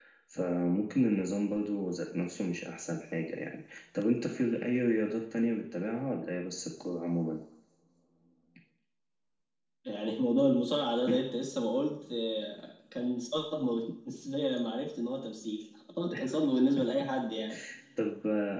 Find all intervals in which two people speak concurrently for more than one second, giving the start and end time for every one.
none

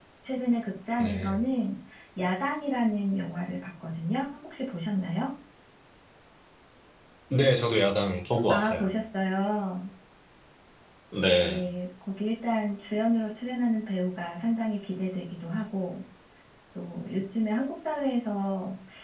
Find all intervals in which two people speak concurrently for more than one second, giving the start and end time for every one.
none

